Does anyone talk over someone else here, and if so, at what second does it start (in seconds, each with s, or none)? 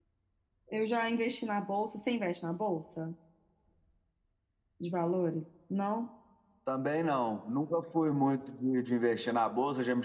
none